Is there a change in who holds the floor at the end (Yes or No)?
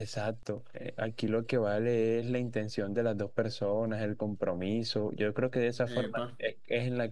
No